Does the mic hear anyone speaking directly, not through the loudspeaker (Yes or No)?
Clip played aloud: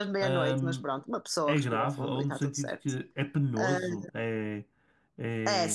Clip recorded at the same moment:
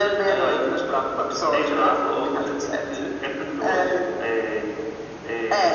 No